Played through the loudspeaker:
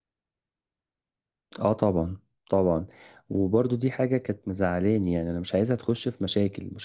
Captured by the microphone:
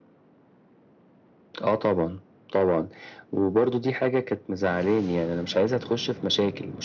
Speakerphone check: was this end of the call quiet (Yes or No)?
Yes